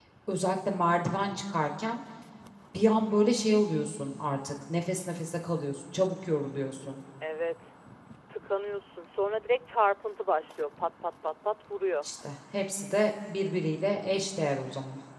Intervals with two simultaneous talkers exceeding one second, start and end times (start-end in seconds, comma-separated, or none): none